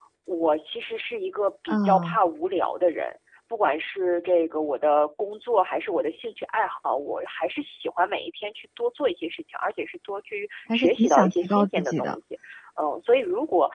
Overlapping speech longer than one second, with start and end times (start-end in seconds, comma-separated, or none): 10.7-12.2